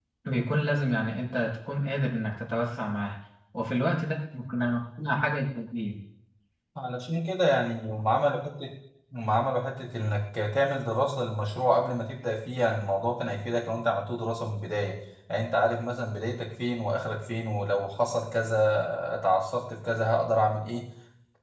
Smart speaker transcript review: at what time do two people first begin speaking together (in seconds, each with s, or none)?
none